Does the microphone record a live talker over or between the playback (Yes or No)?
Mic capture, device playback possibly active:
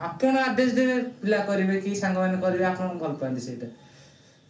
No